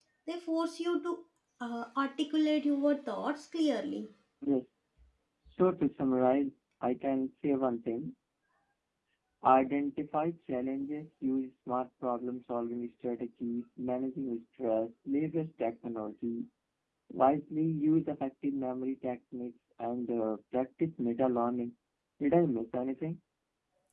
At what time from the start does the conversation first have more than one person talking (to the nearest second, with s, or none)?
none